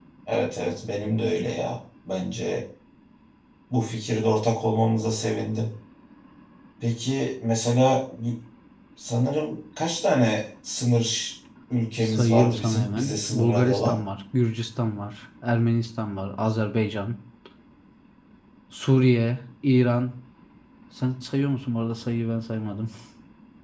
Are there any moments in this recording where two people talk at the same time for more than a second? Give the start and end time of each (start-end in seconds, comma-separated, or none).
12.0-14.0